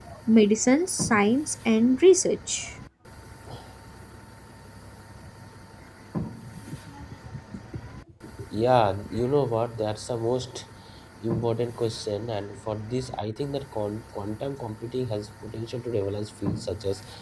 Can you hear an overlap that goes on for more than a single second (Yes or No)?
No